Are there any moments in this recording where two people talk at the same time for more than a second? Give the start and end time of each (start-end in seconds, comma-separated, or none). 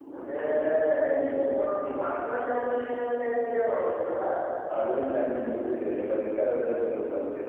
none